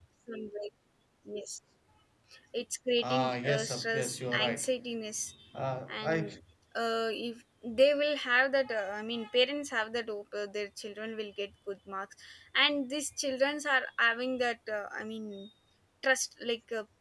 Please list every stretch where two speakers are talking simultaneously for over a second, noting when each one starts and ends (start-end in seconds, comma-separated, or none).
3.0-4.7